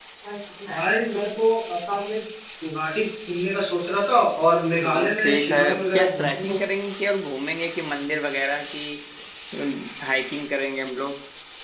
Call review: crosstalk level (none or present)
present